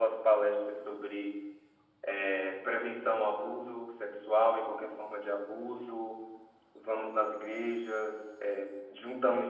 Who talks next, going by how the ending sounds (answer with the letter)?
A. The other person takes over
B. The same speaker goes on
B